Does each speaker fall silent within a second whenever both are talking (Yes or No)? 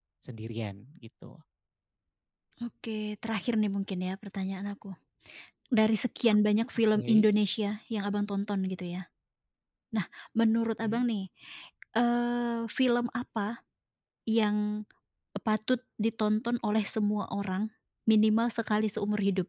Yes